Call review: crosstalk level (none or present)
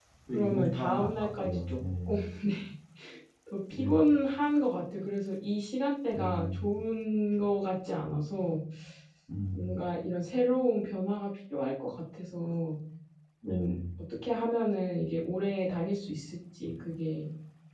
present